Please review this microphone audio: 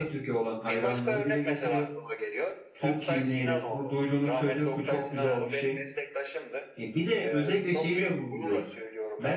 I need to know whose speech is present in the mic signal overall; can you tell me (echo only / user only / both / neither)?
both